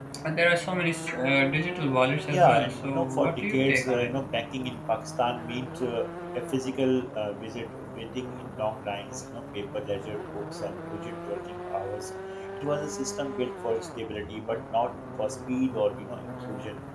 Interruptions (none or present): present